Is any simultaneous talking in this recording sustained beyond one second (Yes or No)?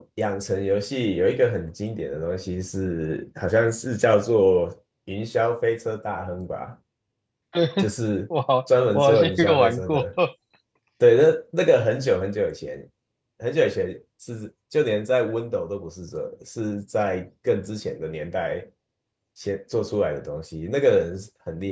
Yes